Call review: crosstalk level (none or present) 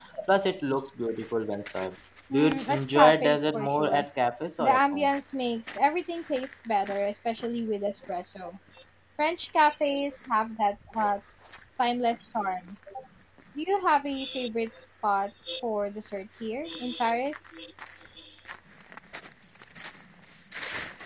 present